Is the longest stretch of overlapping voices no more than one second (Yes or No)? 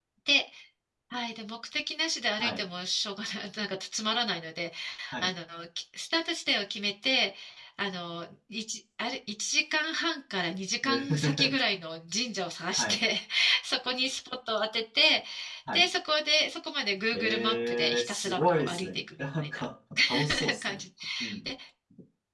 No